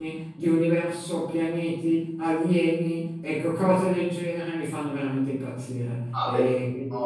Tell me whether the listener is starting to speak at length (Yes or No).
Yes